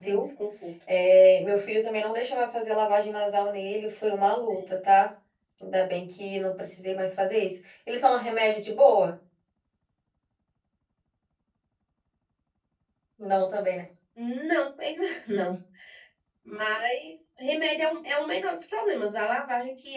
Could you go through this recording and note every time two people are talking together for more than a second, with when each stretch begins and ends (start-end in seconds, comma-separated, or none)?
none